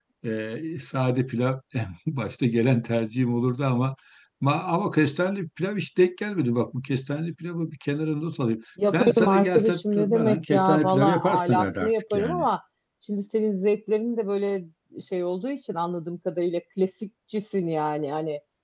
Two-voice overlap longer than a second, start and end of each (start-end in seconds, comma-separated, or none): 8.9-12.4